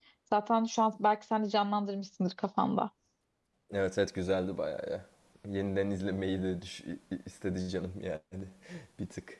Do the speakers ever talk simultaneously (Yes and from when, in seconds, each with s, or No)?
No